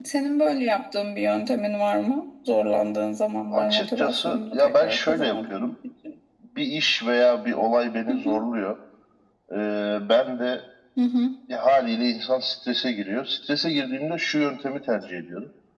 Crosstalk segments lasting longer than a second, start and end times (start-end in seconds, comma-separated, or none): 3.5-5.7